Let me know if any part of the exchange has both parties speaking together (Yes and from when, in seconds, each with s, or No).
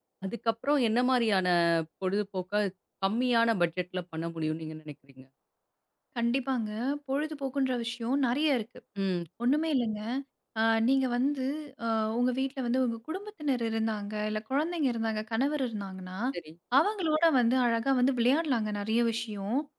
No